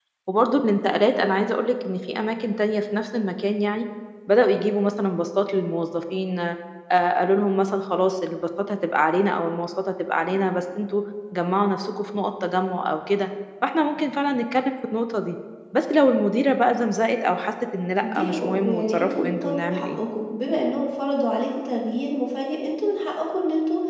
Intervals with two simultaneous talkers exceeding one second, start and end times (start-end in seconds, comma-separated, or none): 18.0-20.0